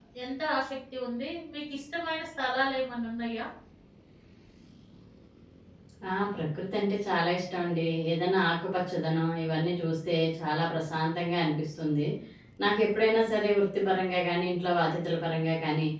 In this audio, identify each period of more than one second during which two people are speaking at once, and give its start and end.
none

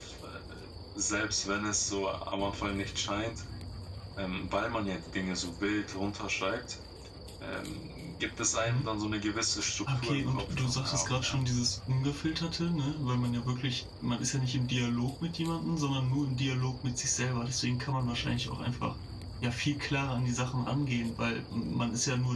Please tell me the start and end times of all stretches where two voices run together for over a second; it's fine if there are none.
9.9-11.4

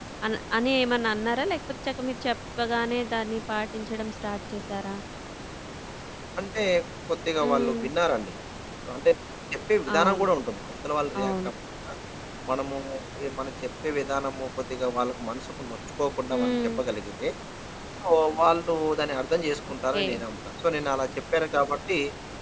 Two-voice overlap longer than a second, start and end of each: none

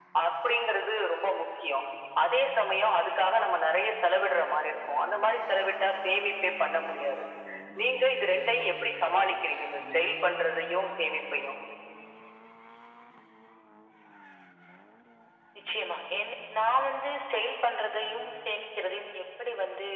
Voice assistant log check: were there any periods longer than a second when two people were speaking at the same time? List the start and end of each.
none

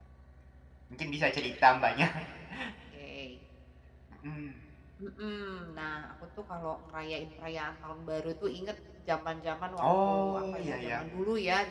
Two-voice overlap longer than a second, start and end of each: 9.8-11.0

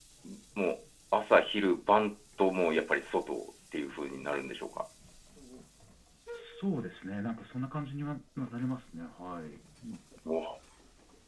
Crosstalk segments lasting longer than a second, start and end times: none

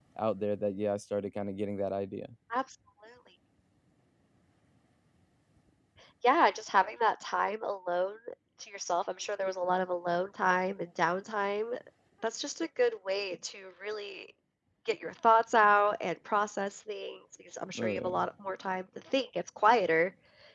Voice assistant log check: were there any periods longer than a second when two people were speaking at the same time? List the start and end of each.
none

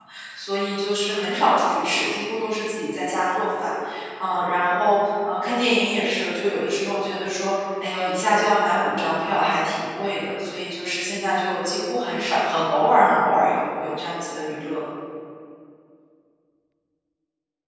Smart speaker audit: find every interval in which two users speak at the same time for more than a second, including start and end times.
none

